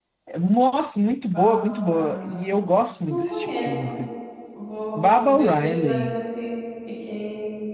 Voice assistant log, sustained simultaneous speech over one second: present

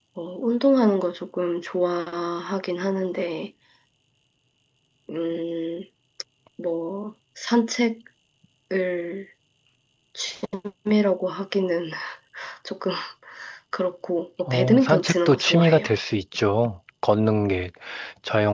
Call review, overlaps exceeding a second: present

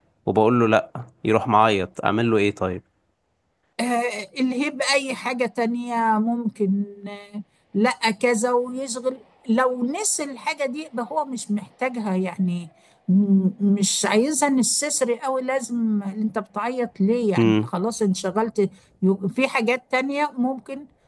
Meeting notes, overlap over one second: none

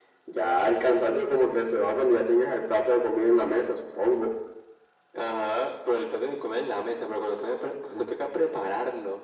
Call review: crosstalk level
none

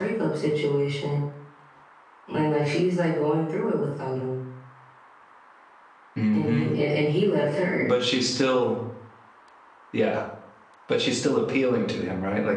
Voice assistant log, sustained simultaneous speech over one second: none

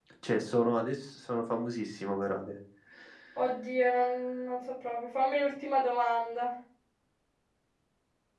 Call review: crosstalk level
none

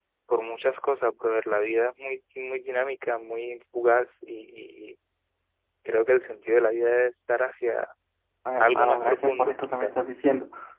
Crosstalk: present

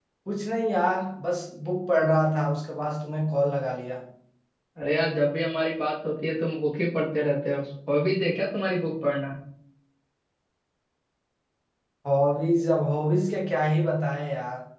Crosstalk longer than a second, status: none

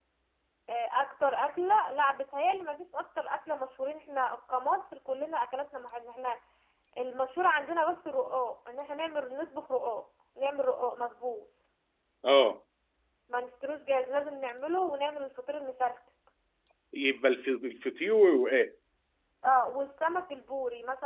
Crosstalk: none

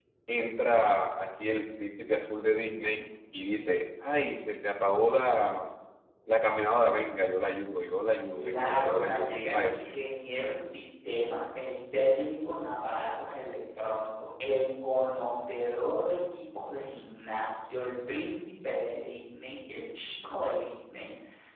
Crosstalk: present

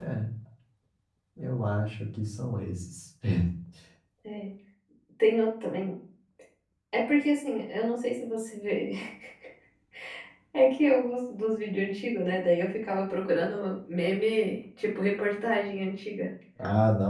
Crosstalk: none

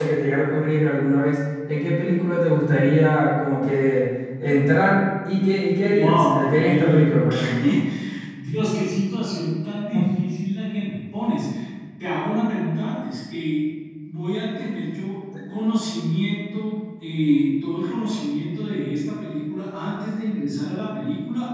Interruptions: present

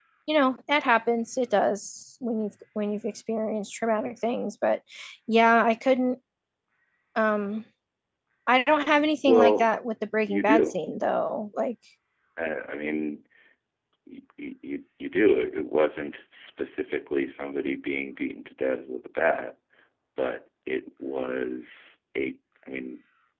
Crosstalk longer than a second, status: none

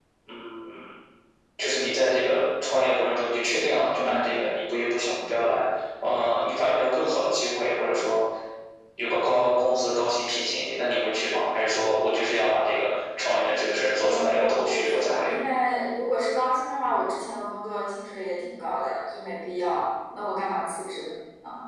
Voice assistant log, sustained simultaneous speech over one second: present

